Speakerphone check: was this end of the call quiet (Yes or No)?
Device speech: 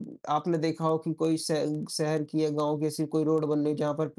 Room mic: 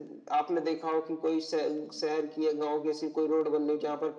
Yes